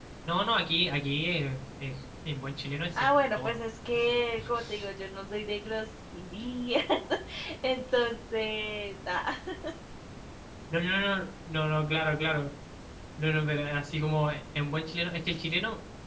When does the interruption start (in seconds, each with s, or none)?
3.0 s